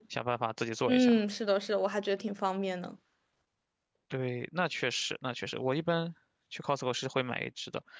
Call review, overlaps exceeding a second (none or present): none